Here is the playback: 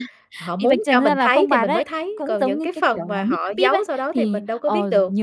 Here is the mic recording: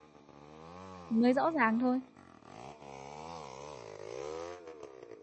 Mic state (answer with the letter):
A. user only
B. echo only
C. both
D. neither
A